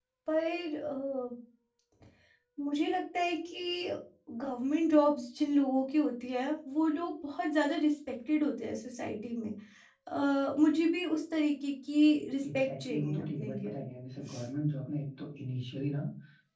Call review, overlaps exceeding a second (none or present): present